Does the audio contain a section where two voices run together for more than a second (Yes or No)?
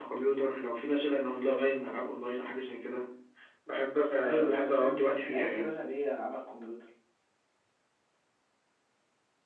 Yes